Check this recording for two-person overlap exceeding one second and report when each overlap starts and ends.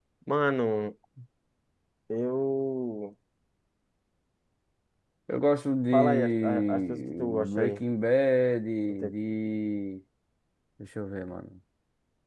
5.9-7.8

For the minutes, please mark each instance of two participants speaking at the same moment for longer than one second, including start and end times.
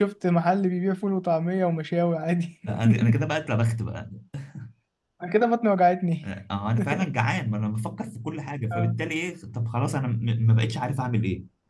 none

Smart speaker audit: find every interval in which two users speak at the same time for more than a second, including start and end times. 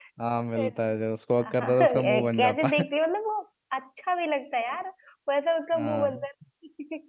1.6-2.8

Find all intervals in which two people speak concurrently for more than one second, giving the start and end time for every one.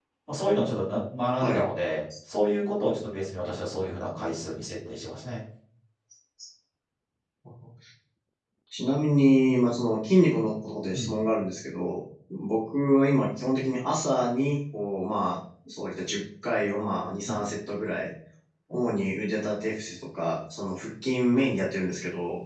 none

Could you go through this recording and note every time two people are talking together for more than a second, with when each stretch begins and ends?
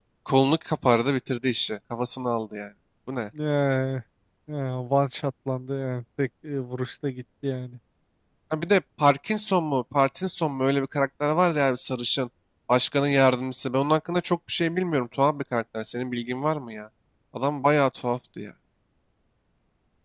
none

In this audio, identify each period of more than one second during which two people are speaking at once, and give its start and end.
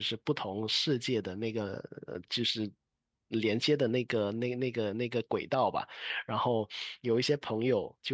none

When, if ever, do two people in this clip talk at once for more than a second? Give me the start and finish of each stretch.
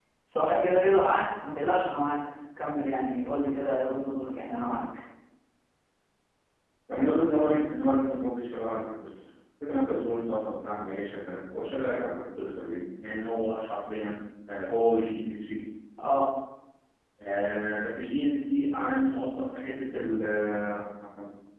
none

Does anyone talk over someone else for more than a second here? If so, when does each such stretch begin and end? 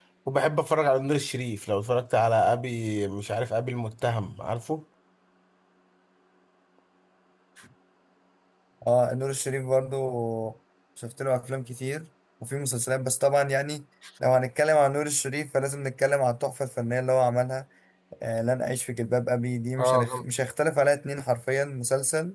none

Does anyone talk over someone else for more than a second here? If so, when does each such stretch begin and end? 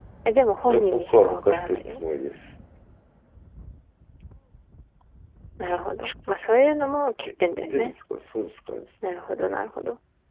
0.7-2.0

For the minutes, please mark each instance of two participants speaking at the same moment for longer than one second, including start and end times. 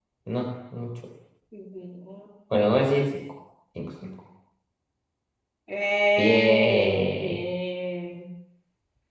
6.2-7.4

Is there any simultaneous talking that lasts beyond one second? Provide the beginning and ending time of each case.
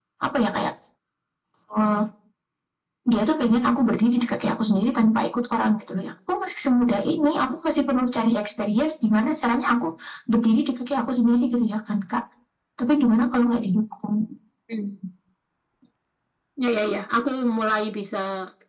none

